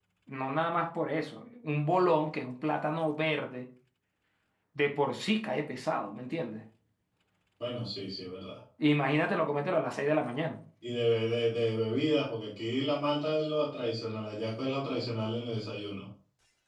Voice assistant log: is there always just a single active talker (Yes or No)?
Yes